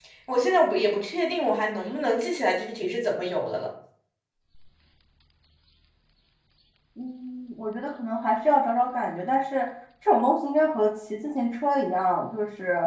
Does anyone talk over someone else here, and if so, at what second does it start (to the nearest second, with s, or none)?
none